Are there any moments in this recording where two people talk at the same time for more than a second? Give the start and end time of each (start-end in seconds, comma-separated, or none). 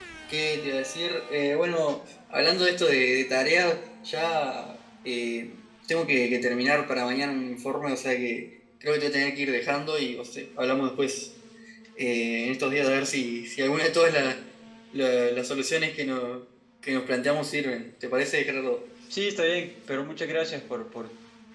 none